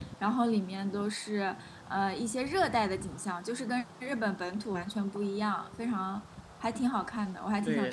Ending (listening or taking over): taking over